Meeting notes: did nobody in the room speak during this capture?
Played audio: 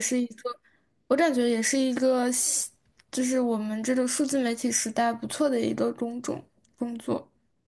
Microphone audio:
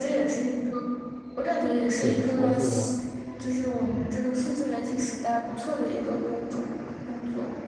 No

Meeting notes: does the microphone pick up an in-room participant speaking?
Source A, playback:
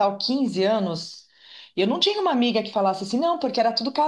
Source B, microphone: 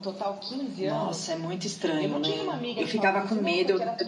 Yes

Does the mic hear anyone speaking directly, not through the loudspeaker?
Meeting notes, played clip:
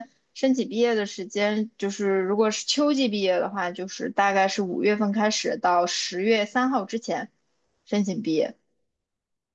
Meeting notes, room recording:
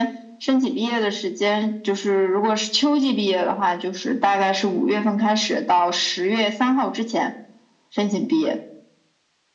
No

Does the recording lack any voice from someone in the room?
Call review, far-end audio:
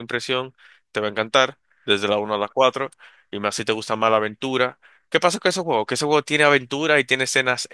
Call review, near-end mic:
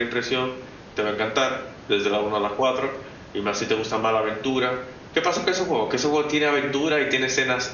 Yes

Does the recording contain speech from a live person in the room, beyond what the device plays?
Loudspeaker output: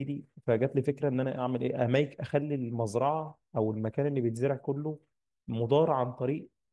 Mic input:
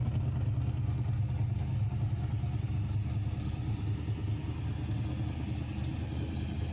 No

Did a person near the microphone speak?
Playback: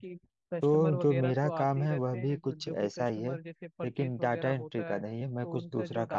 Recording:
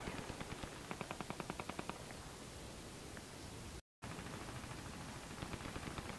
No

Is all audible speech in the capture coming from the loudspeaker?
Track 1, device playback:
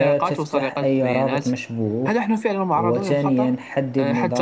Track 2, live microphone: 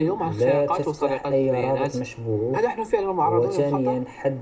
Yes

